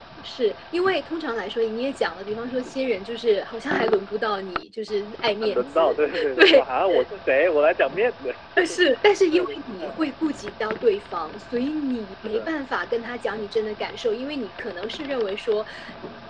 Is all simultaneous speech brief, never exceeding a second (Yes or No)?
No